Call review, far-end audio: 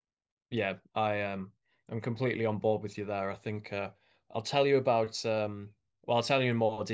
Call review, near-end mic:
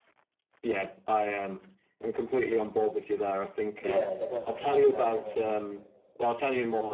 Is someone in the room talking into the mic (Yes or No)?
Yes